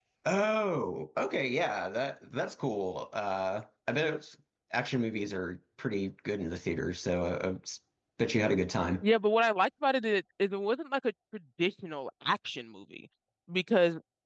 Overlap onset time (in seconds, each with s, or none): none